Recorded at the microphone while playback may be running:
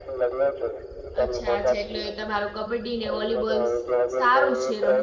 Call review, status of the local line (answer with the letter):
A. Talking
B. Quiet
A